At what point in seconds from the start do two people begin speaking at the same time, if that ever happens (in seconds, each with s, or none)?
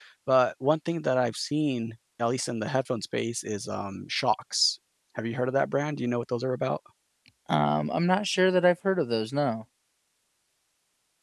none